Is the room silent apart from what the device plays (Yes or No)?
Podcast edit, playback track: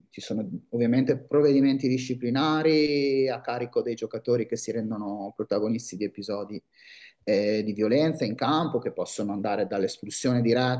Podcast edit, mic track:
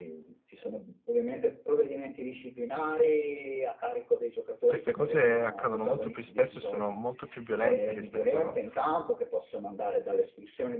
No